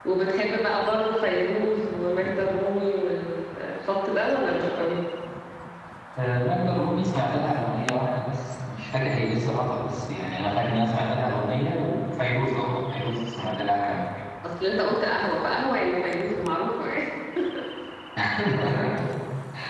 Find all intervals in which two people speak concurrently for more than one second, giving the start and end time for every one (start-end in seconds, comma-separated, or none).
none